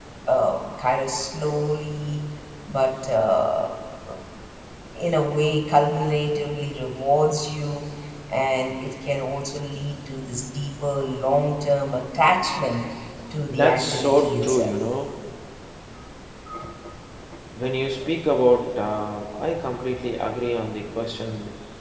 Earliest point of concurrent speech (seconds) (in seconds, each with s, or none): 13.5 s